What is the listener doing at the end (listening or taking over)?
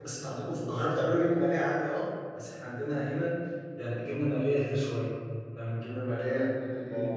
listening